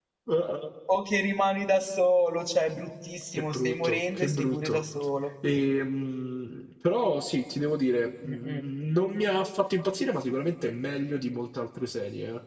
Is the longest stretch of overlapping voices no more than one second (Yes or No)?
No